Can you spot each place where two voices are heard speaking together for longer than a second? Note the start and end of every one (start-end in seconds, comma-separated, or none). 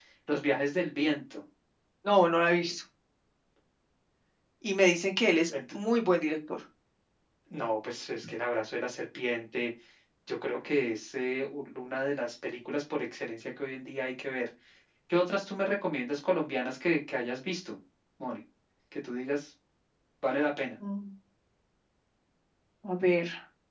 none